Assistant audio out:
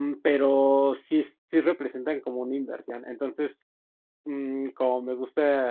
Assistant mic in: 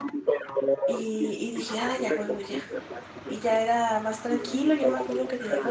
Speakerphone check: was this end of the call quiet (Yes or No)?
No